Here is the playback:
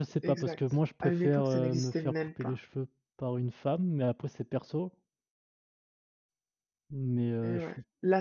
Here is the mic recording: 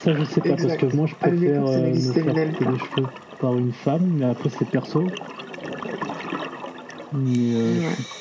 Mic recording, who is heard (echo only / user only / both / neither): echo only